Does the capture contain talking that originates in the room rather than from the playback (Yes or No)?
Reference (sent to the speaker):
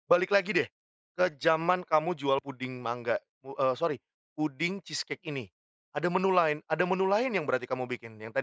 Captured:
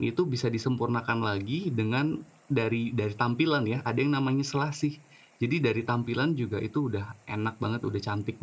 Yes